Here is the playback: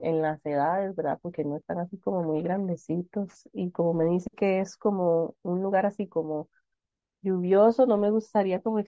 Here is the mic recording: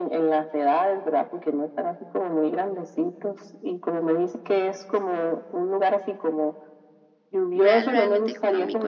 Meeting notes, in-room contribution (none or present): present